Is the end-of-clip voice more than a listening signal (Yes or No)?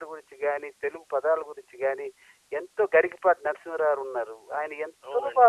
Yes